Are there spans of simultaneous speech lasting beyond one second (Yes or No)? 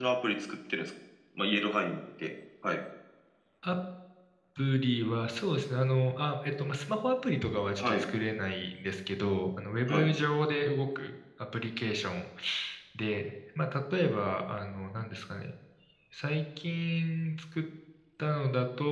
No